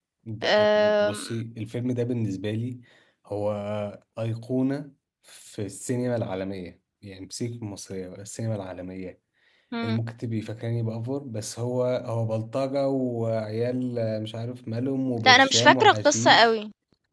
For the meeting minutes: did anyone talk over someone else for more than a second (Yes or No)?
Yes